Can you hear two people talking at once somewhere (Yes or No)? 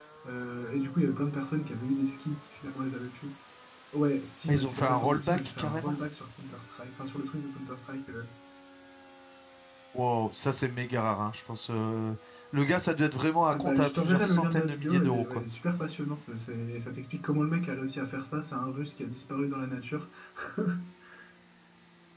Yes